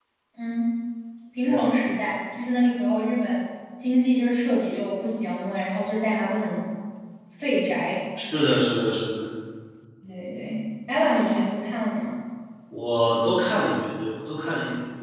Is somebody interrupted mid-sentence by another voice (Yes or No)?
No